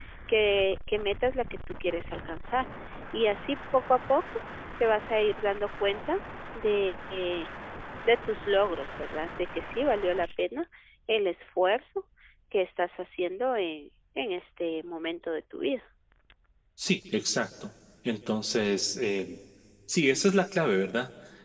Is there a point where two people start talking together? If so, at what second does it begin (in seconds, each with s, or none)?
none